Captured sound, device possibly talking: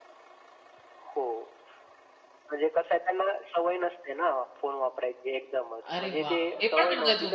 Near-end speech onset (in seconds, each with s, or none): 5.9 s